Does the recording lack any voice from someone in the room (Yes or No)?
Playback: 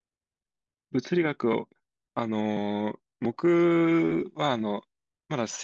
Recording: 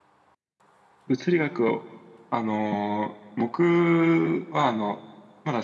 Yes